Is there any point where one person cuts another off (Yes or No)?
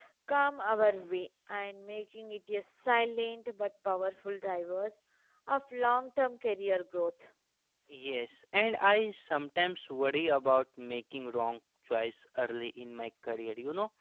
No